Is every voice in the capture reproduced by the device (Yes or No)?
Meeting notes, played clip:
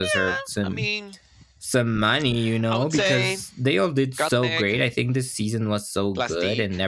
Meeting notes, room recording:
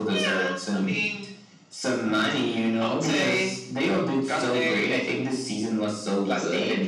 Yes